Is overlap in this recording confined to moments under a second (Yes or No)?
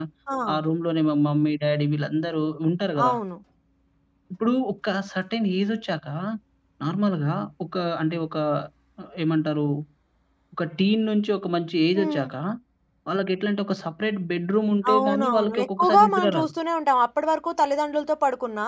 No